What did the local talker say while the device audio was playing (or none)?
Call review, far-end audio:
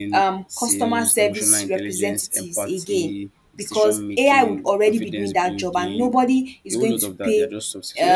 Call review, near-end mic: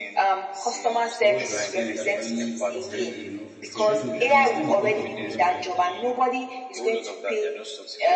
what they are saying is actually correct enough? Because definitely I understand the point of view whereby